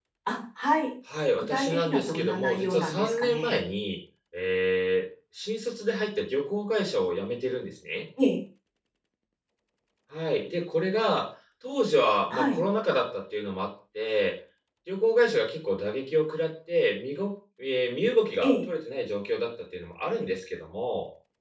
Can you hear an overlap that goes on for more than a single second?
Yes, from 1.4 s

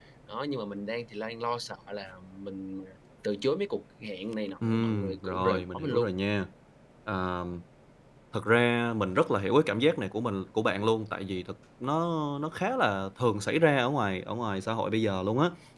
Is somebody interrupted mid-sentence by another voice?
Yes, from 4.6 s

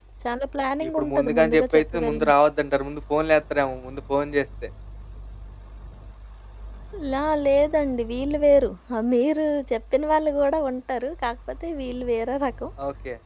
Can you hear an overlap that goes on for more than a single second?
Yes, from 0.9 s

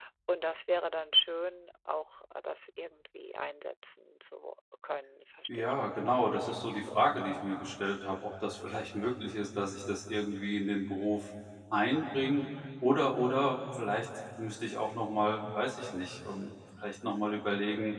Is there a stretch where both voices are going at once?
Yes, from 5.5 s

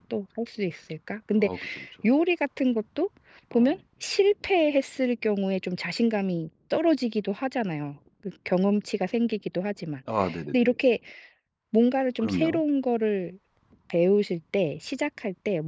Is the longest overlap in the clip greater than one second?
No

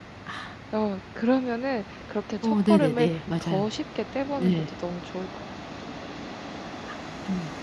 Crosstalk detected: Yes, from 2.4 s

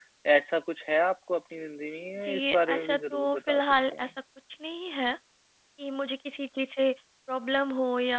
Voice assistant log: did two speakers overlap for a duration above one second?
Yes, from 2.2 s

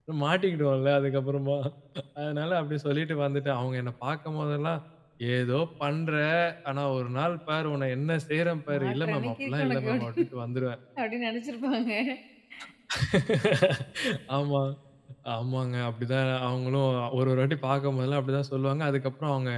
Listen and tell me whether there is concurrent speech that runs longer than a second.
Yes, from 8.7 s

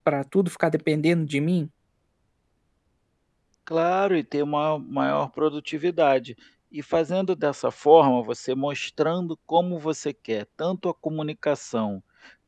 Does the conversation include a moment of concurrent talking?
No

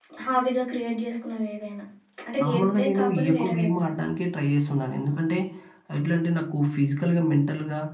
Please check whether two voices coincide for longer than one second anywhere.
Yes, from 2.4 s

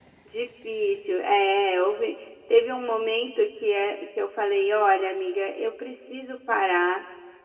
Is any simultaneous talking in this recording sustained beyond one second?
No

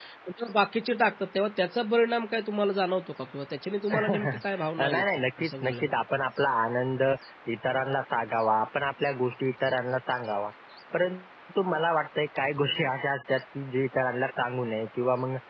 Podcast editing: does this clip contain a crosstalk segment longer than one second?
Yes, from 3.9 s

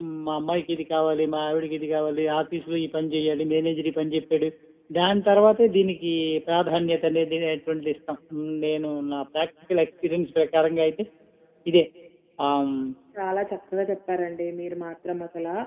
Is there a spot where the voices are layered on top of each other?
No

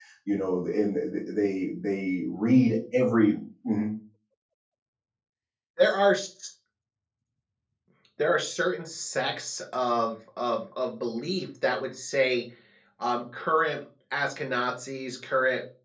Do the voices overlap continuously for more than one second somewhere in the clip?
No

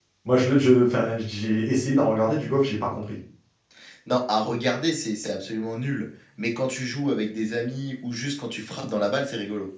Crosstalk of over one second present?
No

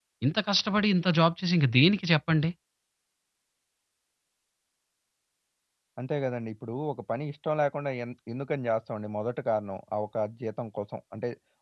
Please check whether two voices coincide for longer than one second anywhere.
No

